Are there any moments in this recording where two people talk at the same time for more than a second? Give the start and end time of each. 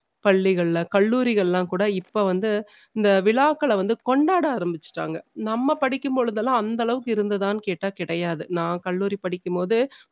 none

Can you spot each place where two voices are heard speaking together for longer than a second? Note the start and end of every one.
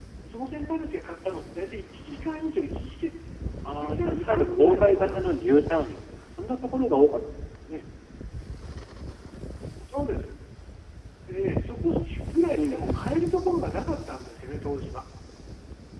3.6-5.8

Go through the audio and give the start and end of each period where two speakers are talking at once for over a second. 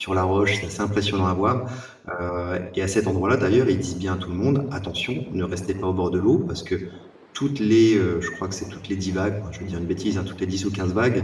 none

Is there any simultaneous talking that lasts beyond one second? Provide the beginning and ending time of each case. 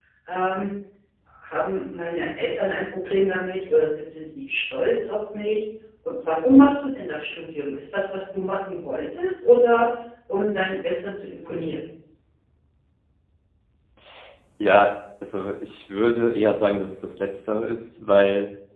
none

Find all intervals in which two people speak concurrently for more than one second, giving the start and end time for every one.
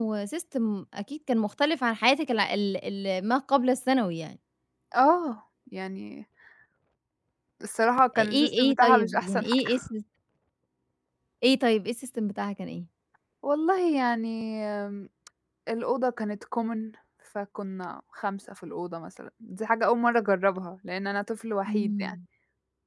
8.2-9.8

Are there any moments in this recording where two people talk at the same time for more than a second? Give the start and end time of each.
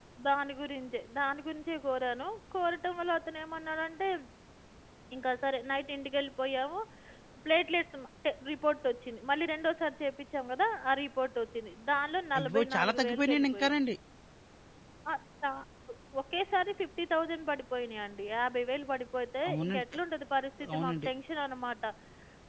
12.4-13.8

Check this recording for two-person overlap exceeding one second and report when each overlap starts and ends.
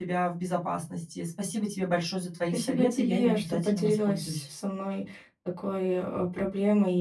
2.5-4.5

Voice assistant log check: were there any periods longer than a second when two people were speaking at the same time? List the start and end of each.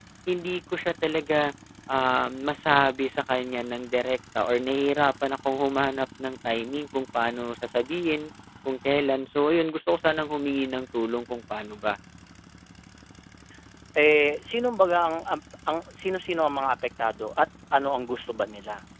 none

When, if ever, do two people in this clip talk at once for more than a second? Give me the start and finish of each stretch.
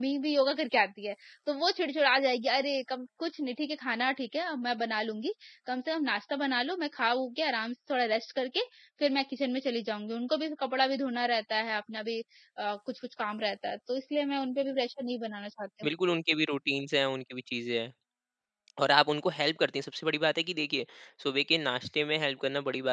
none

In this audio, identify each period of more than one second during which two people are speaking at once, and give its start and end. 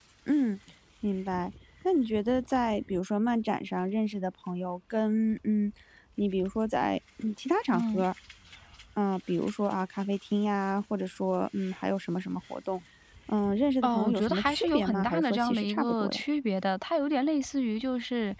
13.8-16.2

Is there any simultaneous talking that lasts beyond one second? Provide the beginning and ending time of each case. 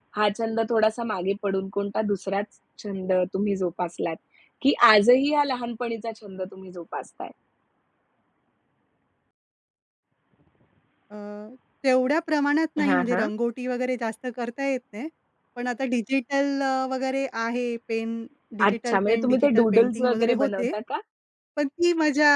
18.7-20.7

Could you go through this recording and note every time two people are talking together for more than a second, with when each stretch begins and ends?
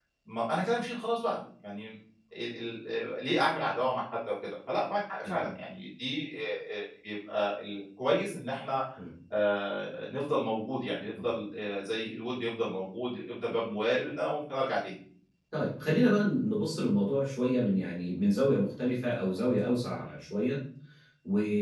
none

